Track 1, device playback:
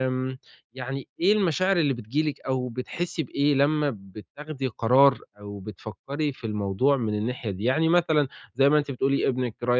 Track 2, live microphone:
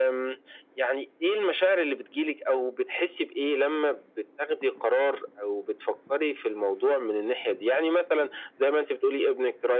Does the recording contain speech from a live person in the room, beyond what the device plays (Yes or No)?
No